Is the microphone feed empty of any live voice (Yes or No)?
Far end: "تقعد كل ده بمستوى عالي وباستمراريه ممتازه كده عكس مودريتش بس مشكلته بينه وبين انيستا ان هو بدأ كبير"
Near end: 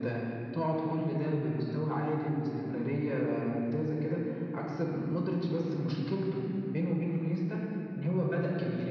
Yes